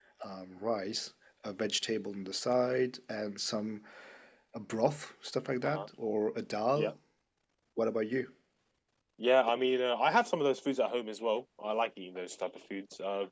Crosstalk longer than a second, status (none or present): none